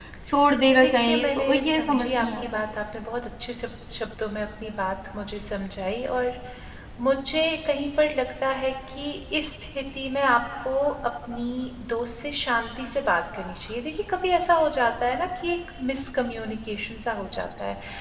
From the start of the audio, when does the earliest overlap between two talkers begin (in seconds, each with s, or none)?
0.8 s